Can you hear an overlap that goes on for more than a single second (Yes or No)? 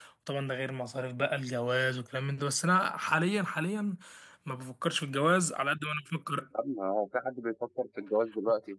No